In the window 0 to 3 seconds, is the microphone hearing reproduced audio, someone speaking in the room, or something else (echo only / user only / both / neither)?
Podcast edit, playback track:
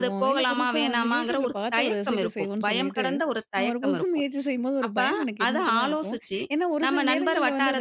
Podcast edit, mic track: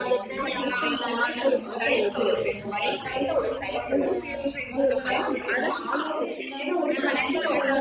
both